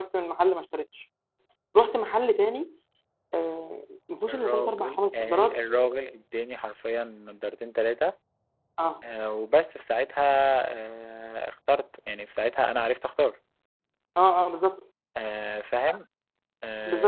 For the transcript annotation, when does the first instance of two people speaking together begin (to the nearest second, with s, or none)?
4 s